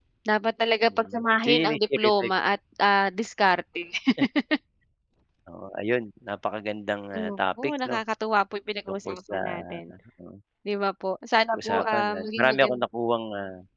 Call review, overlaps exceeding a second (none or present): present